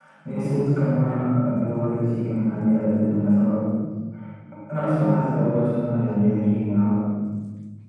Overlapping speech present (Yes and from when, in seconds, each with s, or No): No